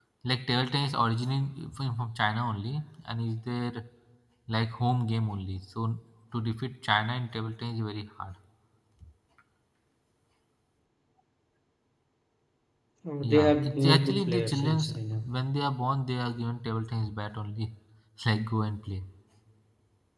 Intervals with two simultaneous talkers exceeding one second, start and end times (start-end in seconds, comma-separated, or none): 13.2-15.2